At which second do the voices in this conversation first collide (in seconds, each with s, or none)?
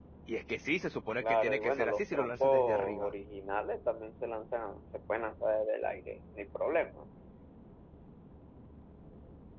1.2 s